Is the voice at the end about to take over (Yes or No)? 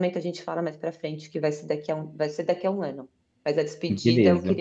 No